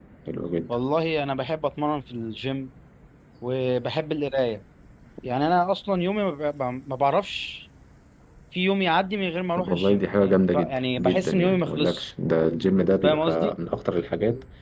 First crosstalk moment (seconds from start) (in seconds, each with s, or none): 9.6 s